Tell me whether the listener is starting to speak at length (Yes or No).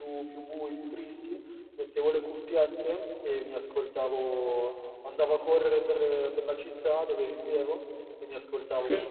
No